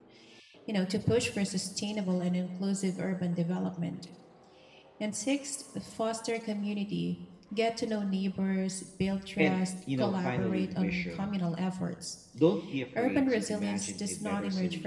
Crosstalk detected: Yes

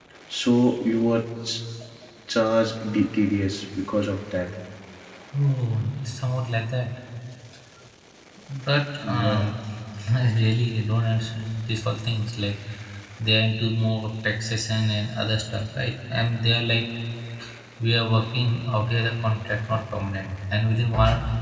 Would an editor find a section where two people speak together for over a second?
No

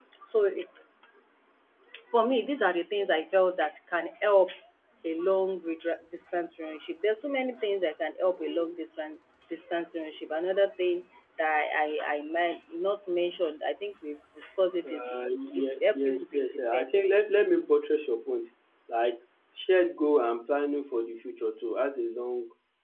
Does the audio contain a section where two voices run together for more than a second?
Yes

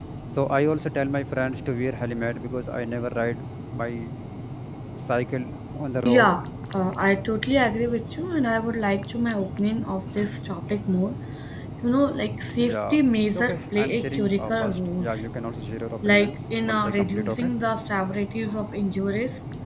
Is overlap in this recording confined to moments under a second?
No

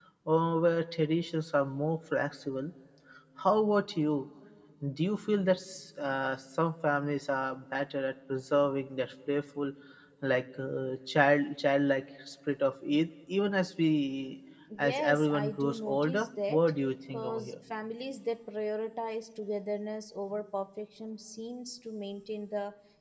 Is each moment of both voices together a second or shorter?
No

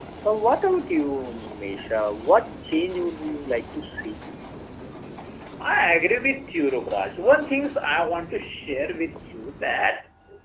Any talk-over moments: No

